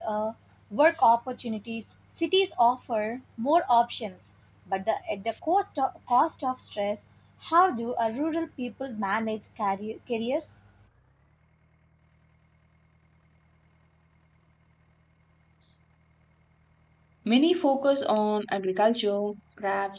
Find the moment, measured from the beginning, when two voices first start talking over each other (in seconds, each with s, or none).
none